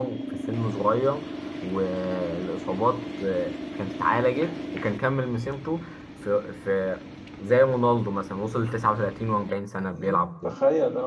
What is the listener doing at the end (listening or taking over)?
taking over